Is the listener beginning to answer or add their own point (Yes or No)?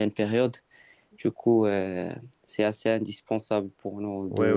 Yes